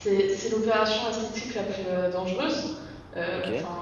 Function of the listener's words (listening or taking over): listening